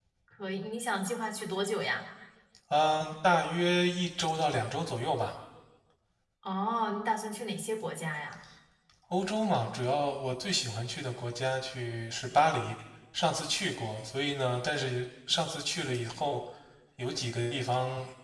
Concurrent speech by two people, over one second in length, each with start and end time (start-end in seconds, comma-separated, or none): none